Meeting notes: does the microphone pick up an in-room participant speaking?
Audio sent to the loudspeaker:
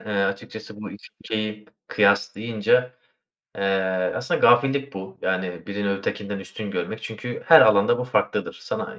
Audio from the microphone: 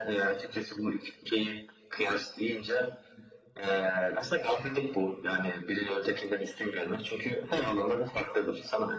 No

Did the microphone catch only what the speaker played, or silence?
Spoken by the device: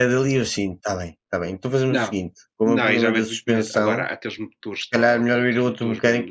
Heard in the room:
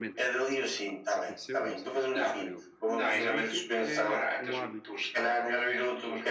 No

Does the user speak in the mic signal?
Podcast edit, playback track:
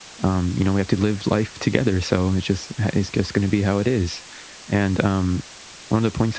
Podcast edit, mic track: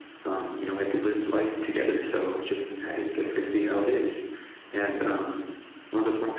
No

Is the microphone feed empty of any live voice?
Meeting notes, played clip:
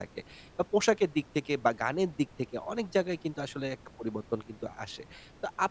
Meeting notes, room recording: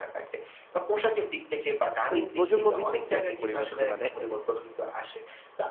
No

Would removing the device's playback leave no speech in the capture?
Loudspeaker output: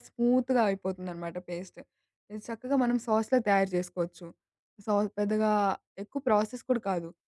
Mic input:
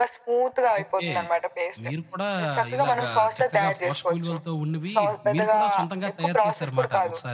No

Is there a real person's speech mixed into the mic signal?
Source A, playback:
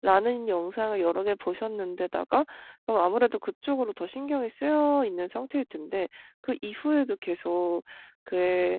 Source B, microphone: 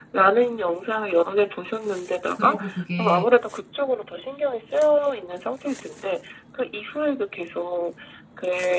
Yes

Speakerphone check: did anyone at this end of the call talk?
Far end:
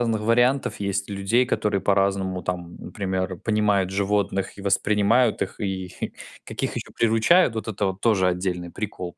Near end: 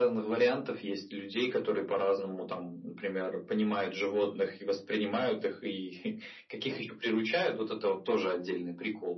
No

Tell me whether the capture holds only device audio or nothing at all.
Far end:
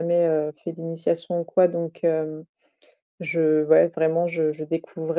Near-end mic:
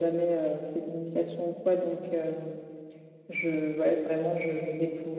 Yes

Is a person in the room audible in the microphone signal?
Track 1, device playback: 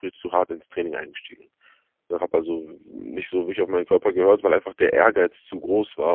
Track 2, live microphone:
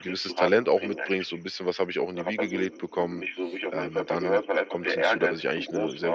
Yes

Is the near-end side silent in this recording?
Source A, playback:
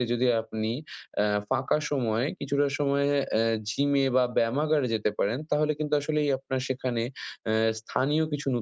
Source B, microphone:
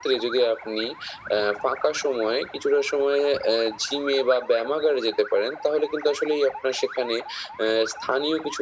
Yes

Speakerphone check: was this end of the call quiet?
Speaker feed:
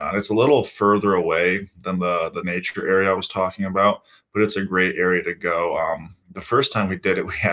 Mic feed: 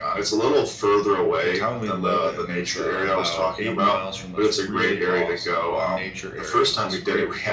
No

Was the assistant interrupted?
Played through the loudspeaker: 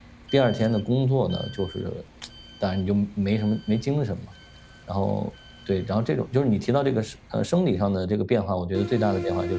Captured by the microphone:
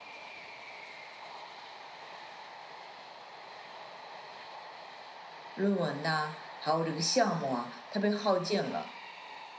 Yes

